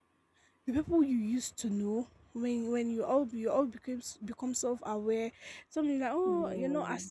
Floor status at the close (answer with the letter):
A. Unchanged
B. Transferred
A